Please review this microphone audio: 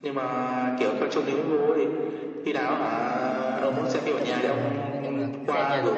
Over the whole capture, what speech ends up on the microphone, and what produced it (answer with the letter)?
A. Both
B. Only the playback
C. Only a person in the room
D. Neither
A